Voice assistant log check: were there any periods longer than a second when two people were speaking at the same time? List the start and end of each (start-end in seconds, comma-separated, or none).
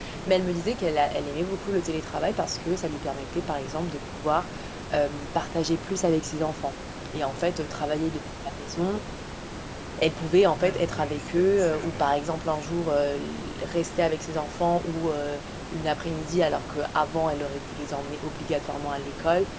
10.6-12.1